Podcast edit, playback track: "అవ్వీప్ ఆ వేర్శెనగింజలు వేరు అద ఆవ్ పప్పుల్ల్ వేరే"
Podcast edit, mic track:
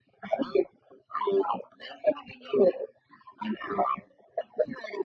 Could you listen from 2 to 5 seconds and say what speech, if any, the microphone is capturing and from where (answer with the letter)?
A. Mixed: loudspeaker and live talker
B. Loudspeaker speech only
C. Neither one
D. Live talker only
B